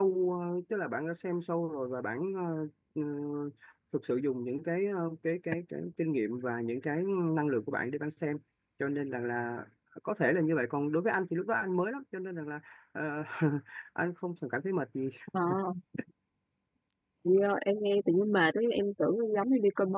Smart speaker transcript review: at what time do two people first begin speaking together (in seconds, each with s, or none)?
none